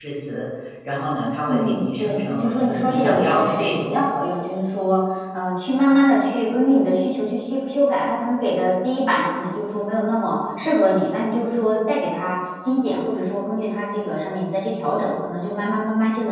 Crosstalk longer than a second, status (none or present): present